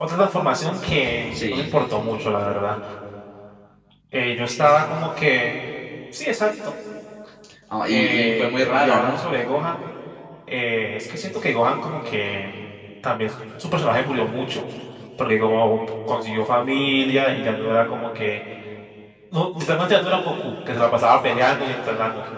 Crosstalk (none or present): present